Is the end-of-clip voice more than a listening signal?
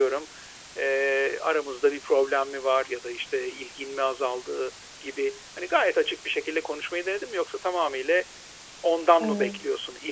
No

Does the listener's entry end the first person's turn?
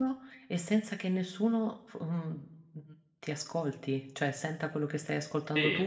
Yes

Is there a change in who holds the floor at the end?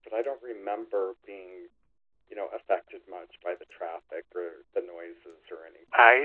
Yes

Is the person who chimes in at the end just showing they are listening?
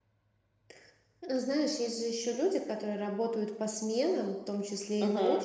Yes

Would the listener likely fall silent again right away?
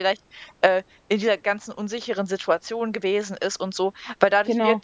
Yes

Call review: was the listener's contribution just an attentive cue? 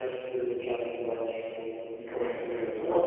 No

